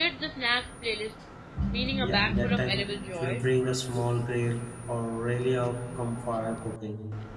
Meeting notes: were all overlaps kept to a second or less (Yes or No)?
No